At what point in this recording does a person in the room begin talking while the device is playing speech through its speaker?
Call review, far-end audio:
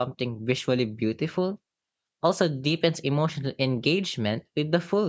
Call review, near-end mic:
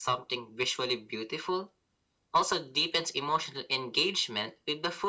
none

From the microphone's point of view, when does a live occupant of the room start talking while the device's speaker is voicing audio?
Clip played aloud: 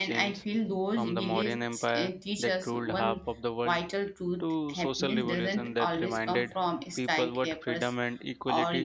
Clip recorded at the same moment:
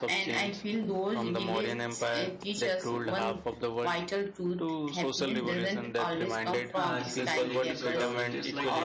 6.7 s

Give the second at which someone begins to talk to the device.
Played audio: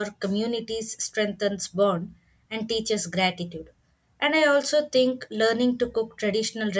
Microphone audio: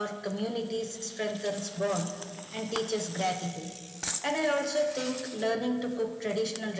none

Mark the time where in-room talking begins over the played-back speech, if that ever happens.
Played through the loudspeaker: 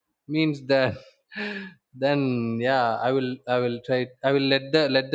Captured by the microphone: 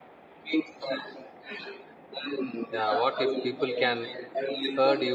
2.7 s

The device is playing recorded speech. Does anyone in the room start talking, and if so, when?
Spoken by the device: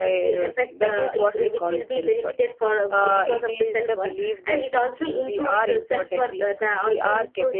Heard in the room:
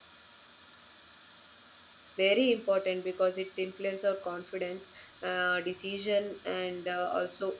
2.2 s

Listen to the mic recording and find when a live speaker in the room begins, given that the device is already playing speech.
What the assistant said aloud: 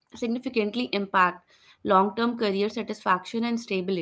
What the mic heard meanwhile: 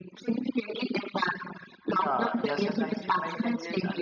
1.9 s

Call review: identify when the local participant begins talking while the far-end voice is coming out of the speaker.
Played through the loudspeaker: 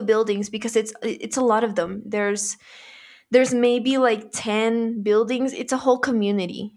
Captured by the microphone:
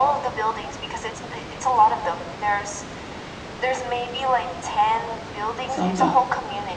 5.6 s

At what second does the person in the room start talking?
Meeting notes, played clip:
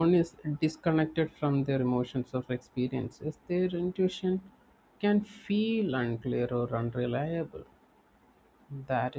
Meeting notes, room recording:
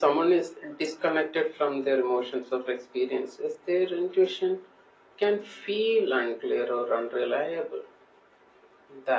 none

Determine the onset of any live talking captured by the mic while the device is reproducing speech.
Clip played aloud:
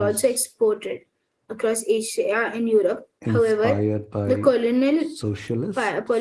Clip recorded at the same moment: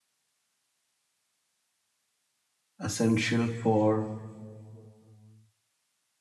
2.8 s

